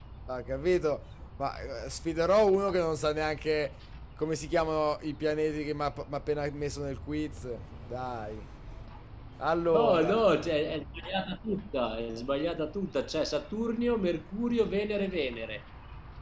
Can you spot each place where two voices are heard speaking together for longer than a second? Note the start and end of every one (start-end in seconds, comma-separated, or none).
none